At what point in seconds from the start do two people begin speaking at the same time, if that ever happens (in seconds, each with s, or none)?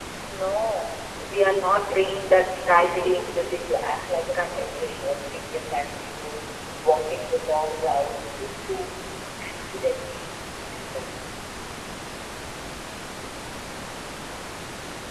1.9 s